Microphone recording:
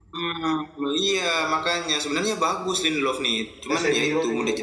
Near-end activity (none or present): present